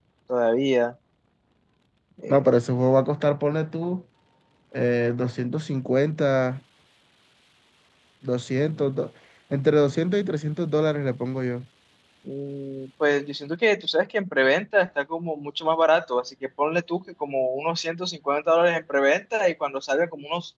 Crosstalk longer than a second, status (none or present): none